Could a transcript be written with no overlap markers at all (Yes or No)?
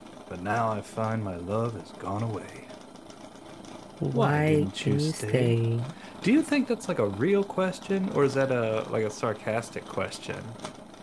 No